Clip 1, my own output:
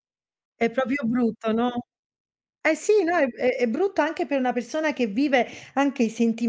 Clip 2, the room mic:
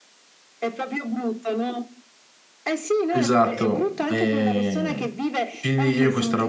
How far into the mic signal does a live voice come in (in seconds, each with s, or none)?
3.1 s